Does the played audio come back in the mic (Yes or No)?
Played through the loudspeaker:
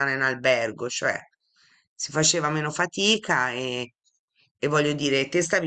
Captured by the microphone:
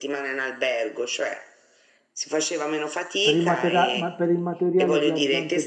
Yes